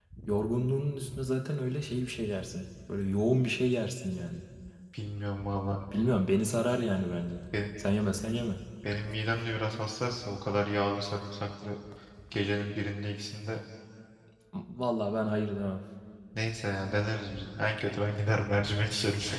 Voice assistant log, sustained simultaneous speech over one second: none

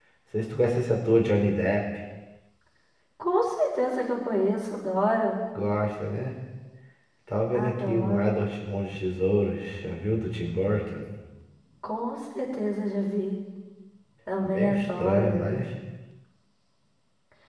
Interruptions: present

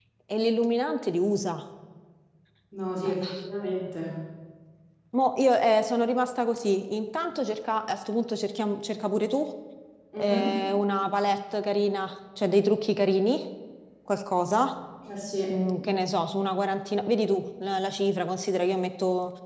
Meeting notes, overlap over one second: none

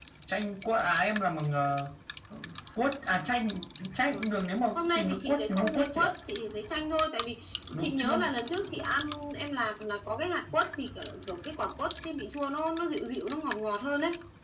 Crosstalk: present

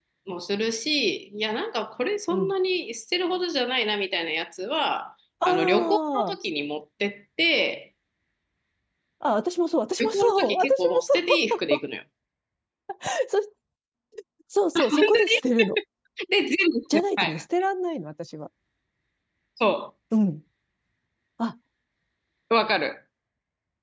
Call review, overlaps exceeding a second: present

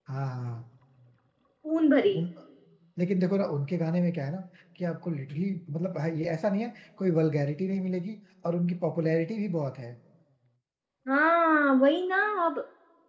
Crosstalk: none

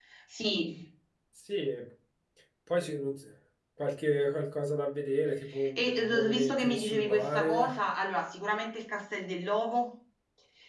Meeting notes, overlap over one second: present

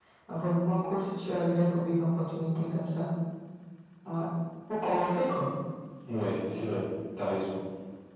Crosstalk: none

